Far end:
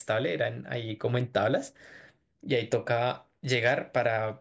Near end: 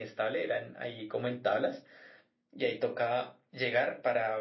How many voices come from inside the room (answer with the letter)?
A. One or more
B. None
B